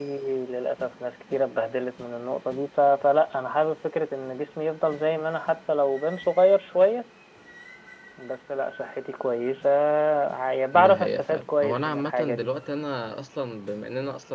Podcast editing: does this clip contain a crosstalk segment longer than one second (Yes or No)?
Yes